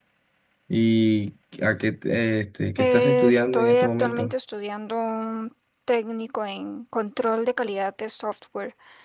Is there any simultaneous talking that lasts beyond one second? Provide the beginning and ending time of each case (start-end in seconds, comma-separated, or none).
2.8-4.3